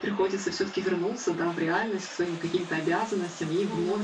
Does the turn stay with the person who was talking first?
Yes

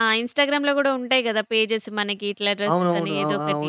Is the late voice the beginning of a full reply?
Yes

